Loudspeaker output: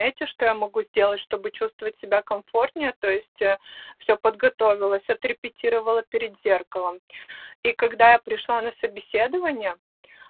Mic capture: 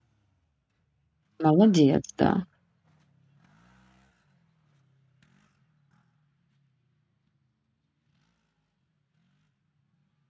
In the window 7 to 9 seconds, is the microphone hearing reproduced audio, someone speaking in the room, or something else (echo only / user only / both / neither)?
neither